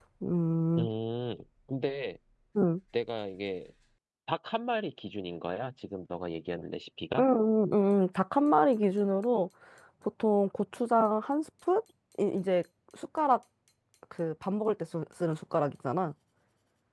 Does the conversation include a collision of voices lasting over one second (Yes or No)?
No